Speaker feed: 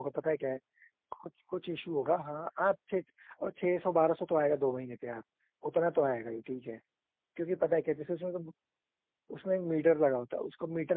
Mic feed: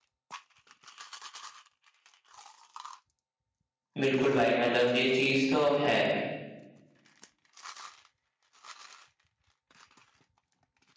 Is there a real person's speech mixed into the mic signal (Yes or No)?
Yes